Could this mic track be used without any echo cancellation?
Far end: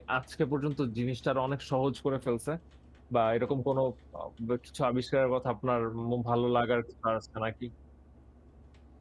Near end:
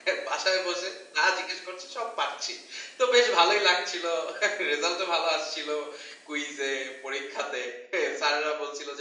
Yes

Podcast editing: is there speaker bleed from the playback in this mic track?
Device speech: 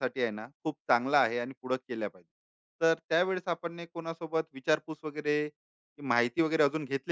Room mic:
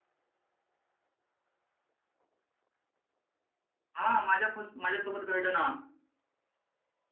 No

